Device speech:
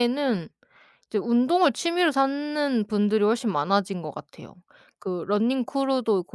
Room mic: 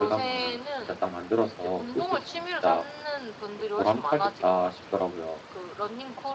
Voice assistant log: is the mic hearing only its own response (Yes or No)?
No